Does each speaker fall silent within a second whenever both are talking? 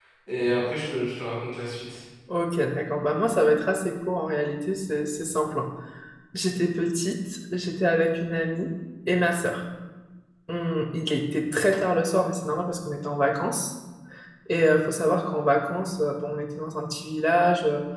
Yes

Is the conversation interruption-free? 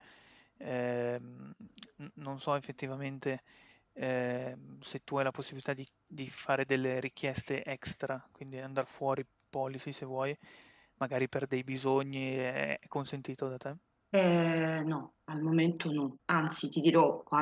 Yes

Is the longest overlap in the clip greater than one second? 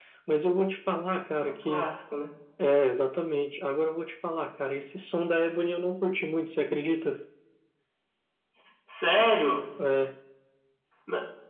No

